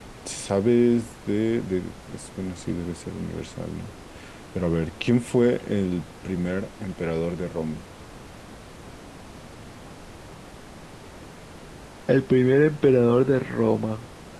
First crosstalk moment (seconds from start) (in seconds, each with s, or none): none